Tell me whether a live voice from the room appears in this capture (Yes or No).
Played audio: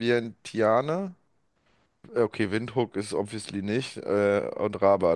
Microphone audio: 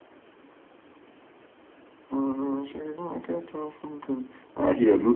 Yes